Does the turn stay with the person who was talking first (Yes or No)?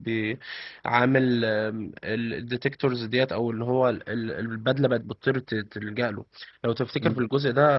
Yes